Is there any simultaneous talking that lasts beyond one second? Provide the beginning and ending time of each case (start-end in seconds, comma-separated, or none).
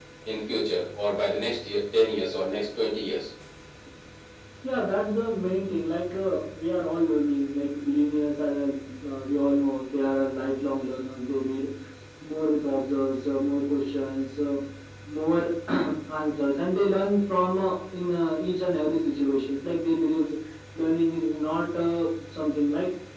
none